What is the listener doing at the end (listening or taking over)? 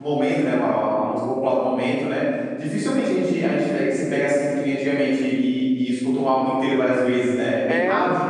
taking over